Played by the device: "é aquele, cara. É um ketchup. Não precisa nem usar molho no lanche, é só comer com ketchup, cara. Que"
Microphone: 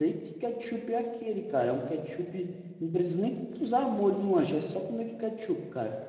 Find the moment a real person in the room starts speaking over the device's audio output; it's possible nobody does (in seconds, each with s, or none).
none